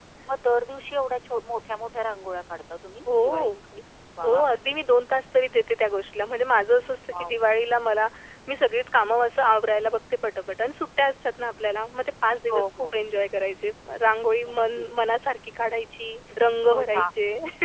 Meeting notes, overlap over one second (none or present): none